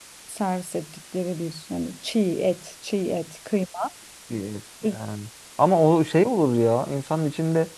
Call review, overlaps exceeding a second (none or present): none